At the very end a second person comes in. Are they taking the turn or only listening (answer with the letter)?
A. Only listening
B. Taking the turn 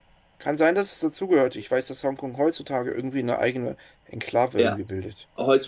B